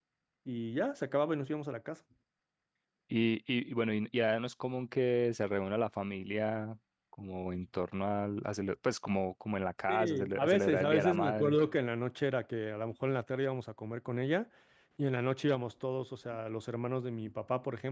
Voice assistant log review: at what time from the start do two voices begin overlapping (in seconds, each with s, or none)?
9.9 s